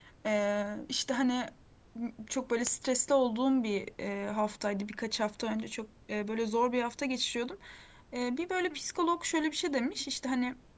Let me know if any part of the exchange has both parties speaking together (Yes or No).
No